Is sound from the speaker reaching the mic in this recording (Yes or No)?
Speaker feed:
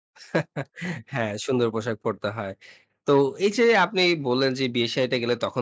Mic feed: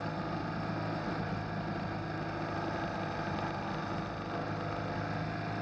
No